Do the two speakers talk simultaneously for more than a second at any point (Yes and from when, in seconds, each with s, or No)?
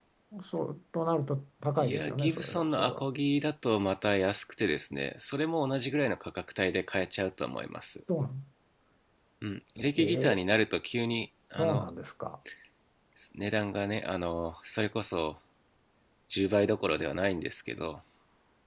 Yes, from 1.8 s